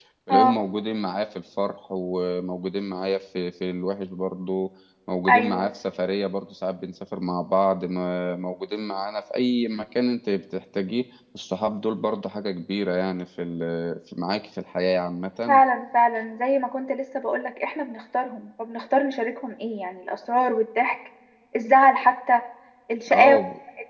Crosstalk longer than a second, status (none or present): none